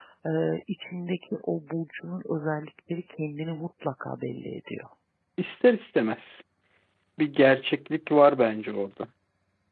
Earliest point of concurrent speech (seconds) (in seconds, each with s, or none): none